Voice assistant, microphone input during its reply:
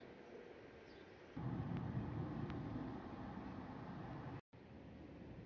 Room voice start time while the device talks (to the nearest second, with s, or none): none